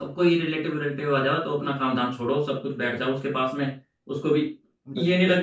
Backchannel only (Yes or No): Yes